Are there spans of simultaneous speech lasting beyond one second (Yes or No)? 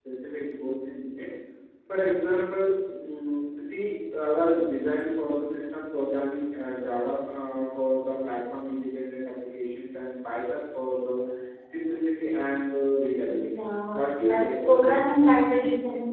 Yes